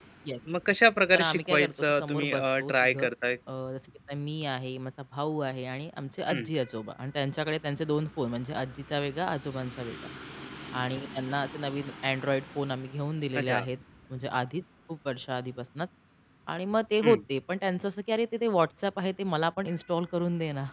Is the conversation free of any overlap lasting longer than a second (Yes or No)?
No